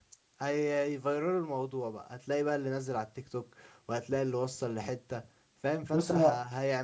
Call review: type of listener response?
listening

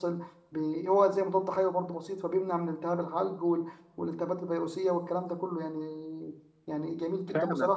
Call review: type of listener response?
listening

